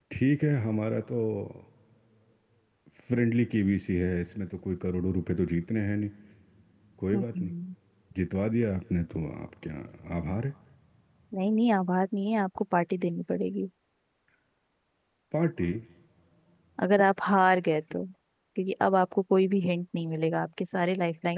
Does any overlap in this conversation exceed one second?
No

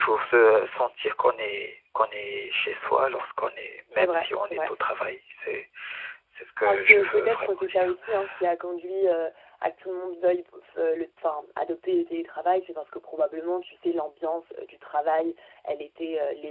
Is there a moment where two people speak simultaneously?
Yes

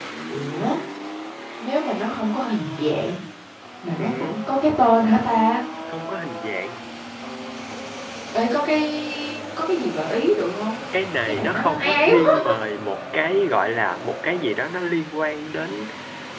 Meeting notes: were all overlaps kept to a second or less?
No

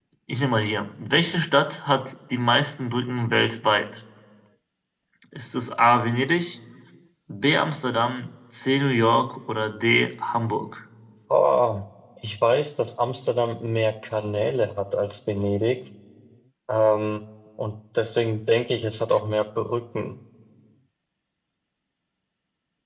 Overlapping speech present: No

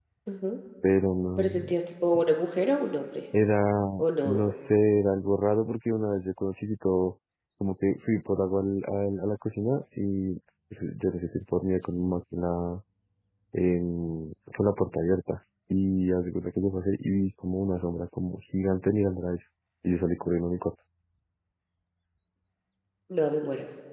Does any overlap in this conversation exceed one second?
No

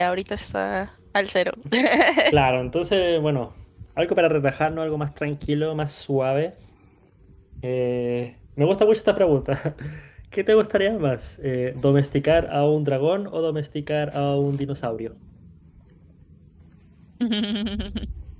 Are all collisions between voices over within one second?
Yes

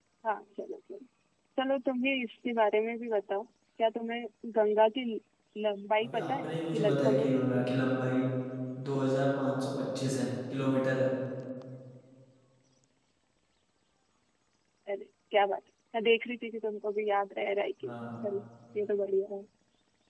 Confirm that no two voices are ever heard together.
No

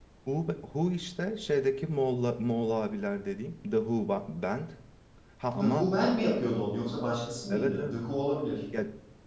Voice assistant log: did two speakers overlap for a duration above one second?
No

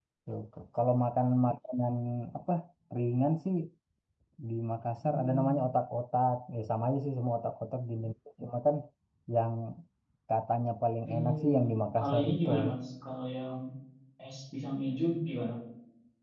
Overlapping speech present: Yes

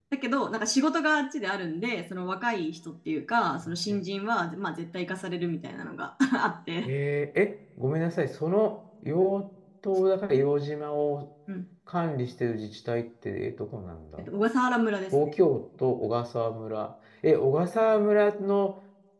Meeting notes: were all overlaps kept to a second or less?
Yes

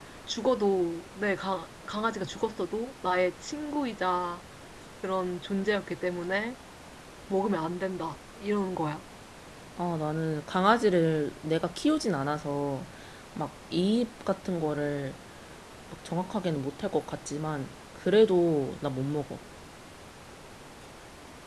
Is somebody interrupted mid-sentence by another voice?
No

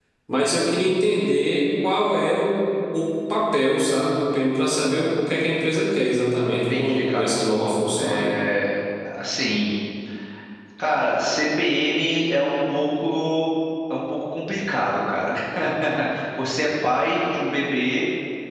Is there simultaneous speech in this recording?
Yes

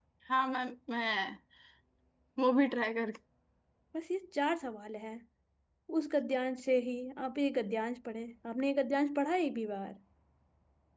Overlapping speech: No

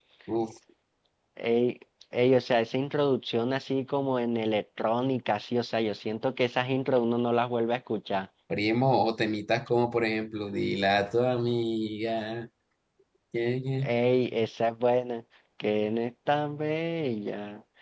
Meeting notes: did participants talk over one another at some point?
No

